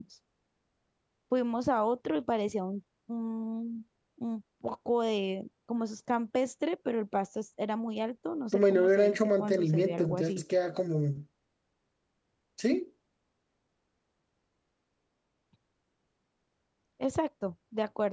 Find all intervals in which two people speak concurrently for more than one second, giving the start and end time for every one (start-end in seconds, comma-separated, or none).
8.5-10.4